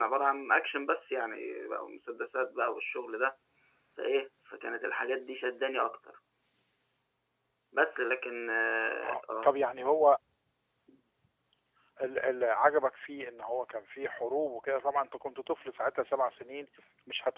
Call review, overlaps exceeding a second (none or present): none